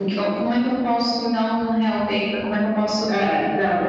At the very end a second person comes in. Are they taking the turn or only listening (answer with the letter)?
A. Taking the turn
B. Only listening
A